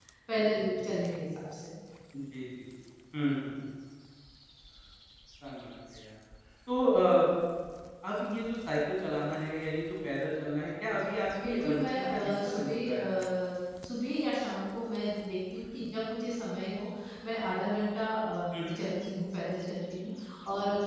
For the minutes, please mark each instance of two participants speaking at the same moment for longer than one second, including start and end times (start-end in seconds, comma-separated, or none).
11.4-13.0